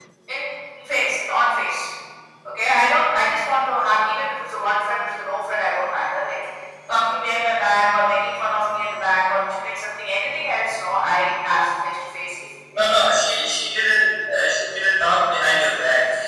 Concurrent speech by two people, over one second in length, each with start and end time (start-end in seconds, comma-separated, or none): none